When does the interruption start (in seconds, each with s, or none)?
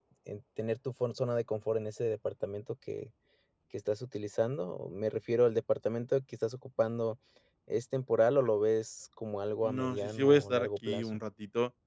9.6 s